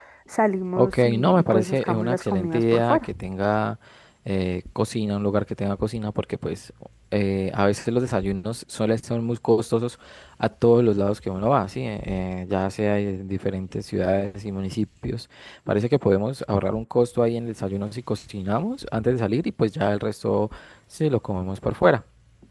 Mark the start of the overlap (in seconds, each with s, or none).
0.8 s